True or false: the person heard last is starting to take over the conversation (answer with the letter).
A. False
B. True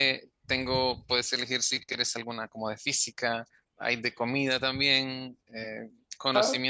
A